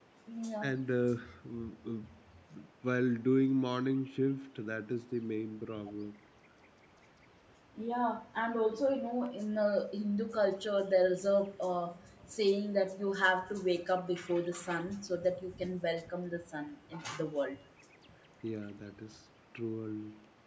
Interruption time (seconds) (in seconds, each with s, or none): none